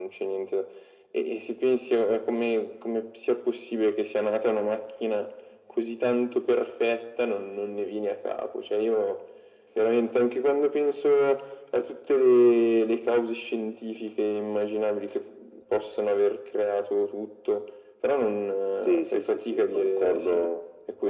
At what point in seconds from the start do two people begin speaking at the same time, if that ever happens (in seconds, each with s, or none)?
18.9 s